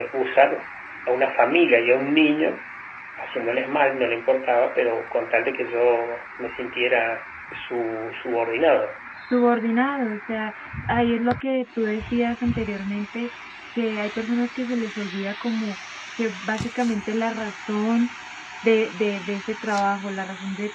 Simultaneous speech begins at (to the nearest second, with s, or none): none